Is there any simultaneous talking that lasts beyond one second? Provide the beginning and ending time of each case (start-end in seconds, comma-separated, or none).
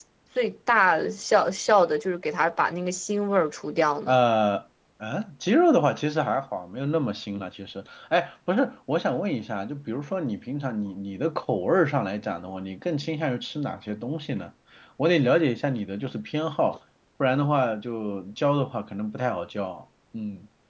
none